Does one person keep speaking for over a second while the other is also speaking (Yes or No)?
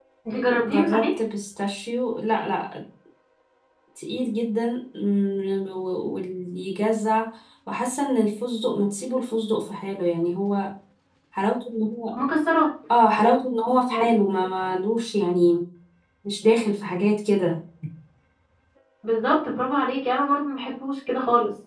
No